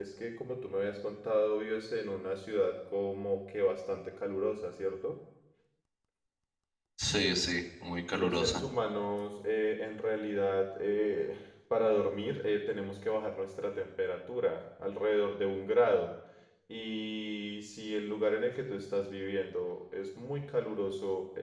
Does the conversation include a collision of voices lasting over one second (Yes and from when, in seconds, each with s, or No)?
No